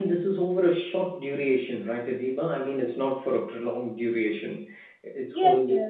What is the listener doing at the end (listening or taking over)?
taking over